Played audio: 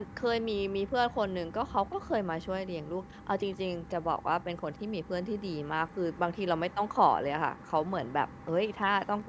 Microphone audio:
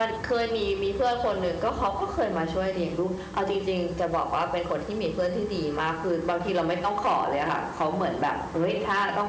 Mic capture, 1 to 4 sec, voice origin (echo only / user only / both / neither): echo only